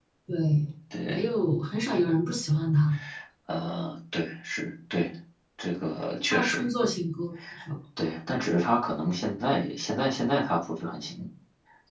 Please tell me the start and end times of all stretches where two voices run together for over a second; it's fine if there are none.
none

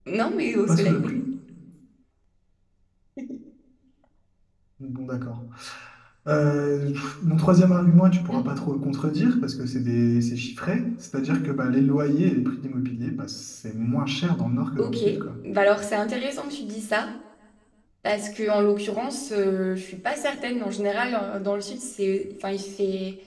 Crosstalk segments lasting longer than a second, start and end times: none

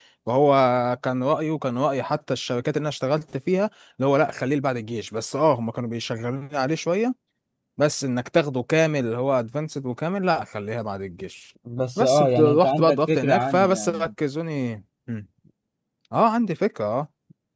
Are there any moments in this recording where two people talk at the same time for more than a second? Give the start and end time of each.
12.0-14.1

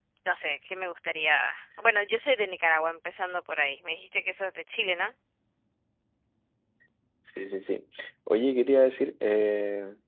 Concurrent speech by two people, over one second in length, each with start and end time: none

